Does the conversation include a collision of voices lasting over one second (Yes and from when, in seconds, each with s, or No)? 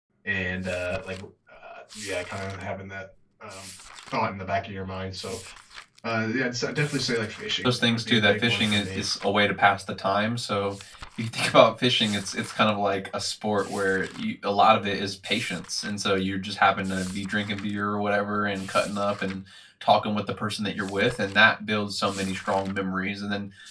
Yes, from 7.6 s